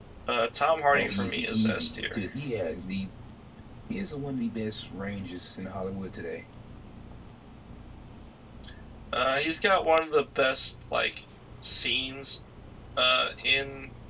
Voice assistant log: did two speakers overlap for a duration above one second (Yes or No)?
Yes